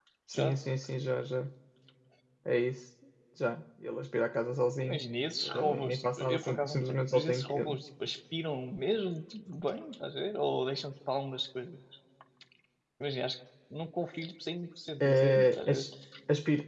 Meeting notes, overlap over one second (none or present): present